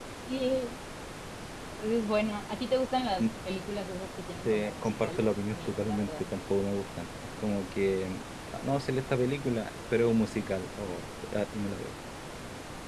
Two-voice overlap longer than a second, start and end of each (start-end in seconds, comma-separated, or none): 4.4-6.3